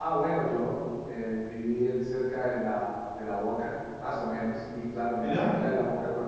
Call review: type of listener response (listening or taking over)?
listening